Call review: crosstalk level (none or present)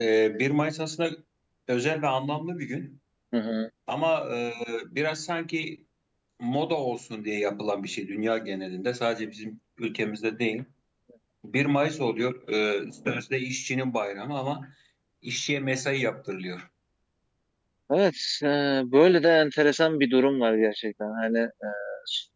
none